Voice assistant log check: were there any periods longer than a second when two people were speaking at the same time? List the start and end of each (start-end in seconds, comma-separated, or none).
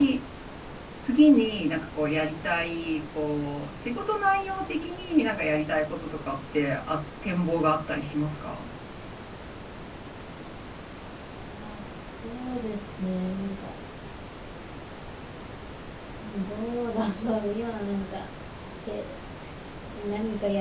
none